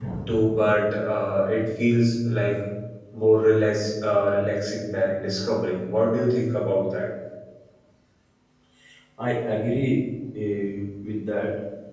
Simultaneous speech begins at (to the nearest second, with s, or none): none